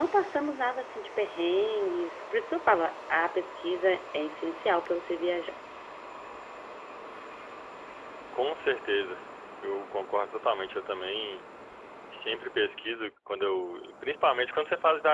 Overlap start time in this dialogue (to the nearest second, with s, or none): none